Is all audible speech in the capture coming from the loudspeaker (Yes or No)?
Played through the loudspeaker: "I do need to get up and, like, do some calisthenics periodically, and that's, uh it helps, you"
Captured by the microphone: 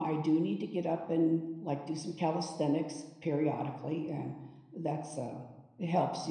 Yes